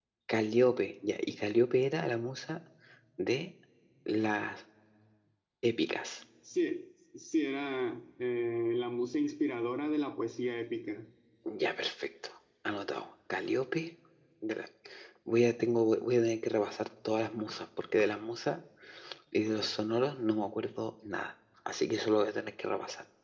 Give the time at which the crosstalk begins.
none

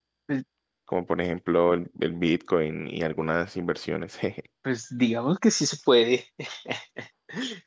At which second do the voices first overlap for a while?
none

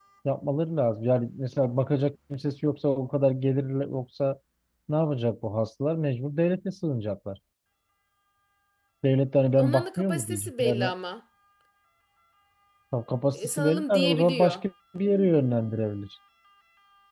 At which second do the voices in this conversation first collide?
9.6 s

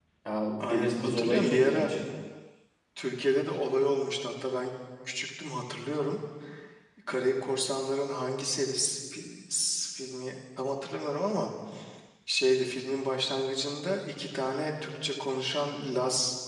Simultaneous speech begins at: 0.7 s

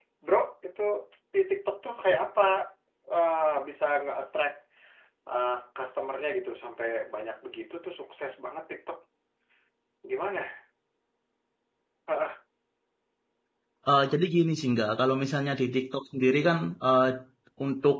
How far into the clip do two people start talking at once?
none

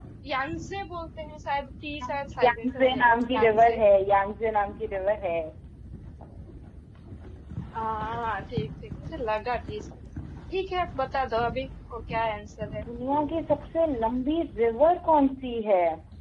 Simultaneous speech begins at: 2.4 s

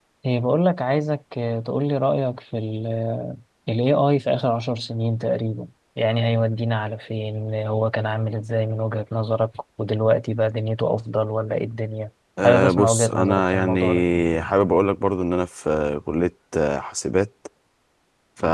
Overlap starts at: 12.4 s

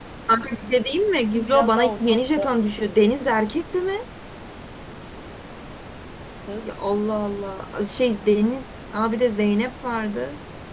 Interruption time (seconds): 1.2 s

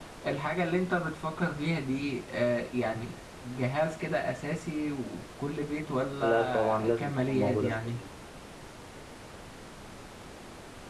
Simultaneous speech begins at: 6.2 s

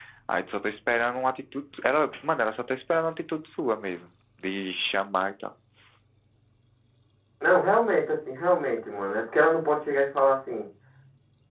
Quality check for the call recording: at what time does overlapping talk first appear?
none

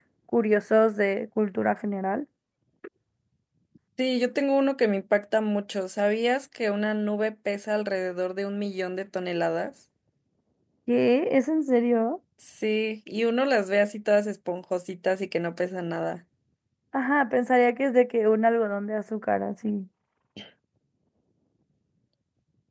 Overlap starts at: none

